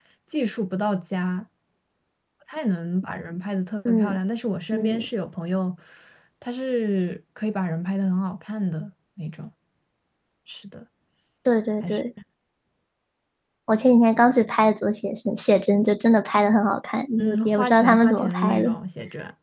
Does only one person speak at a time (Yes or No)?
No